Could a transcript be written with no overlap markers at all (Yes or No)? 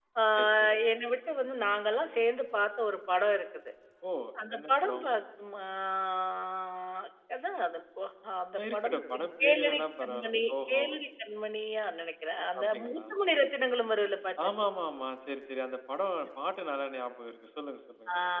No